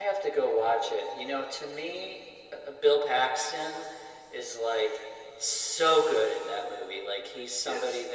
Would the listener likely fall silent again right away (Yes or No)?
Yes